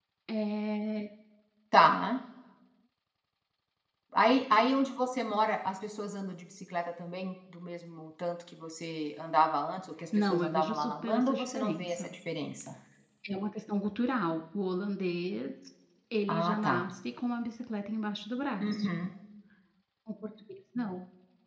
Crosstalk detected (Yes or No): Yes